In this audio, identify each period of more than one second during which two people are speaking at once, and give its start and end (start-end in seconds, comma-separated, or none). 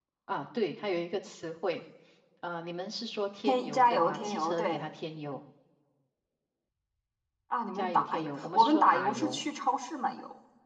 3.4-4.8, 7.8-9.4